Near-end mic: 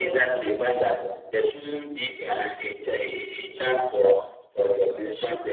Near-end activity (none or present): none